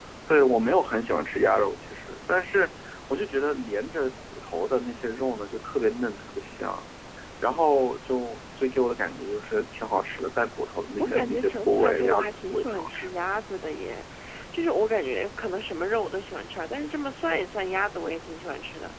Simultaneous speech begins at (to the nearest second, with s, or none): 11 s